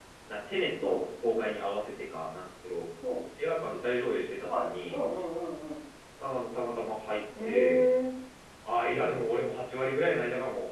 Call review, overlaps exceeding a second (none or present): none